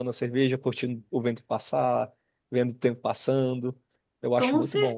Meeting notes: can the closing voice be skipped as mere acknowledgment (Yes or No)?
No